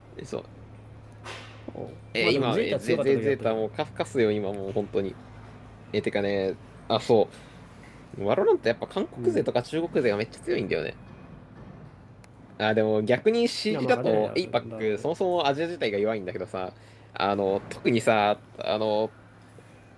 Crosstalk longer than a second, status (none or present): present